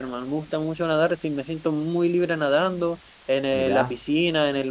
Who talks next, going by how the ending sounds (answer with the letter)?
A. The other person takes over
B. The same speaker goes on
B